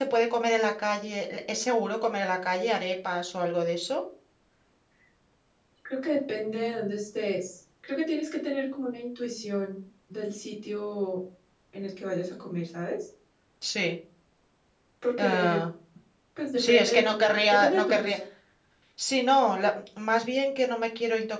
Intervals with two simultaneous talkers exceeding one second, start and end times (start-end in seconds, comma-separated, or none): 16.6-18.2